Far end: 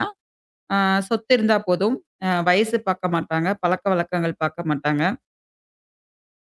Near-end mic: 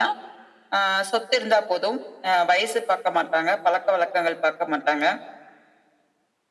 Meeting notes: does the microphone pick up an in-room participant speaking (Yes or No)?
No